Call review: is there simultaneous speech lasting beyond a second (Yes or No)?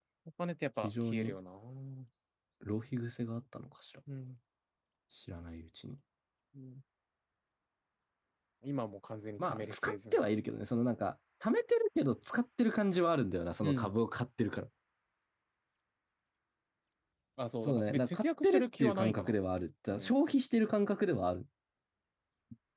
Yes